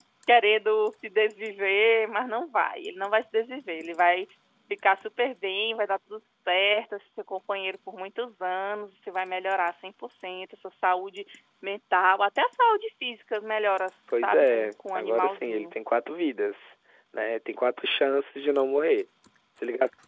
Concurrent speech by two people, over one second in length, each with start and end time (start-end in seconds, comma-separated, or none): 14.2-15.7